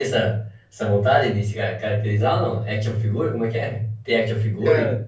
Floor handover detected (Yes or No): Yes